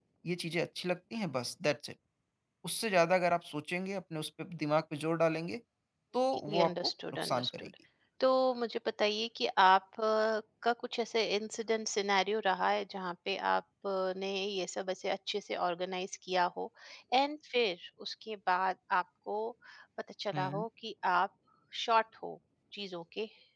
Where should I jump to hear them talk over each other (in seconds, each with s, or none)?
6.5 s